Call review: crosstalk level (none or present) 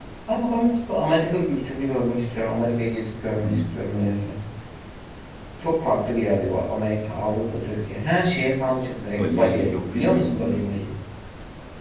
present